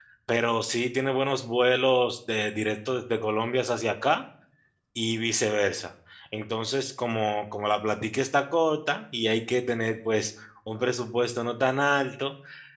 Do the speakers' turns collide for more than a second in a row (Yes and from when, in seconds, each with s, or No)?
No